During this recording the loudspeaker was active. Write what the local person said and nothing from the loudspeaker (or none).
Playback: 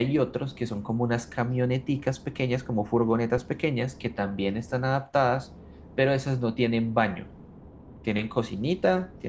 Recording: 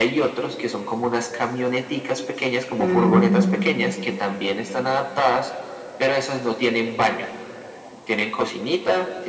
mm.